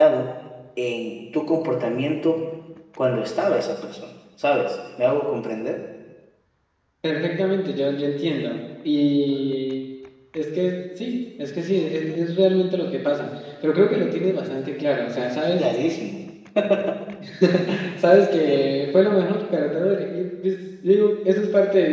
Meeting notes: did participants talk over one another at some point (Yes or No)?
No